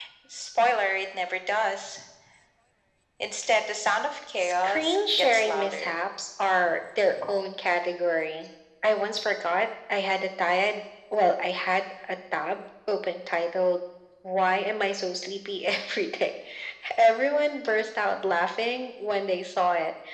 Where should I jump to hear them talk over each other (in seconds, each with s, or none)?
4.4 s